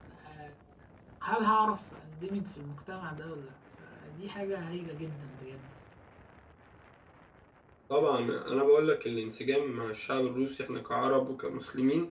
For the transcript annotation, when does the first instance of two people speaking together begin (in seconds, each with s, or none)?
none